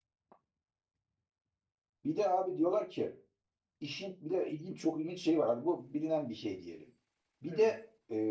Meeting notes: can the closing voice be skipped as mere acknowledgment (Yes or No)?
Yes